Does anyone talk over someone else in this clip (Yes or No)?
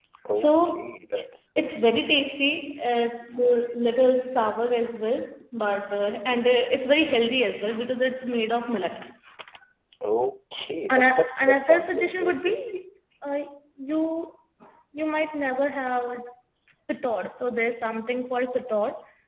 Yes